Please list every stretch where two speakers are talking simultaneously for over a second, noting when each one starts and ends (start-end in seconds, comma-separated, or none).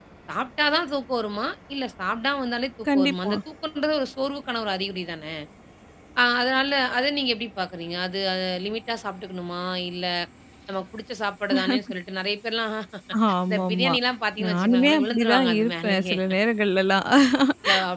14.4-16.2